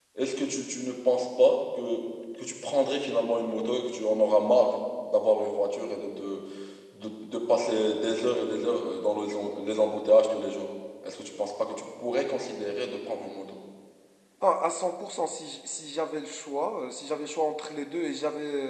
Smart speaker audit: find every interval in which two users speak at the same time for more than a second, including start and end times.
none

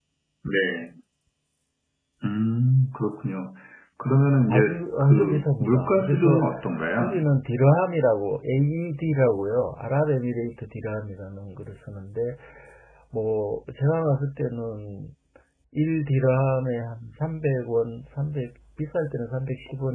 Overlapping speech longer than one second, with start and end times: 4.5-6.4

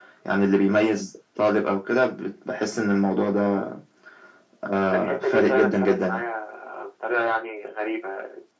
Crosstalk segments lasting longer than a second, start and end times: 4.9-6.2

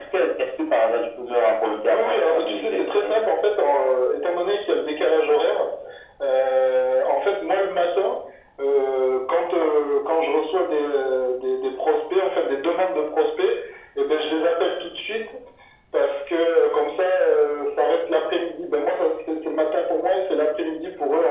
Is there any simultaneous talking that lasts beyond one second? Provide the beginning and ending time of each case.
1.9-3.1

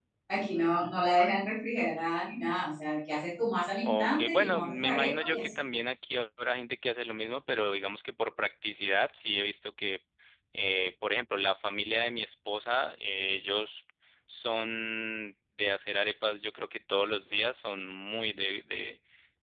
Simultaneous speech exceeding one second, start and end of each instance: 3.8-5.6

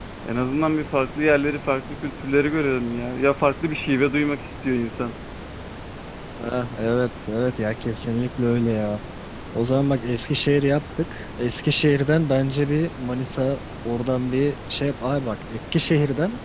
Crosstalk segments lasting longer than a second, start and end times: none

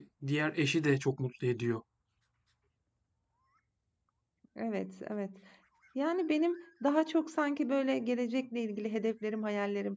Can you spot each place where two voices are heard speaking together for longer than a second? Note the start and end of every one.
none

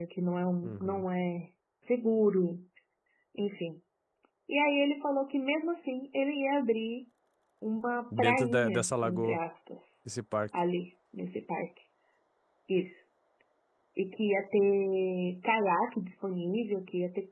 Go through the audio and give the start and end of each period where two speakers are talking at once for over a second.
8.2-9.4

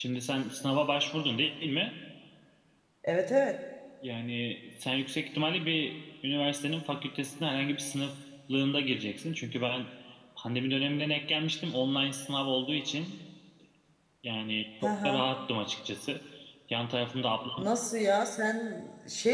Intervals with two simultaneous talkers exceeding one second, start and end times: none

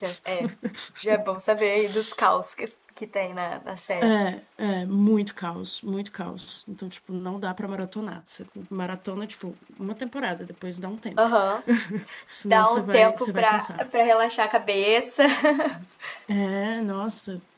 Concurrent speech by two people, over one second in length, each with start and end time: 12.5-13.8

